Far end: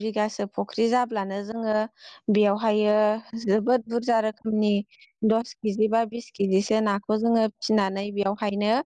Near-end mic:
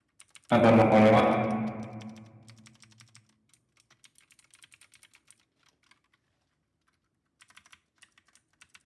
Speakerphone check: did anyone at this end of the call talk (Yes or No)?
Yes